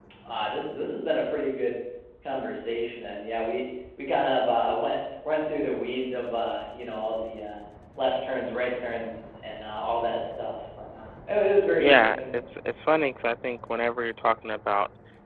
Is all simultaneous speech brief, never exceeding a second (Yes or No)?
Yes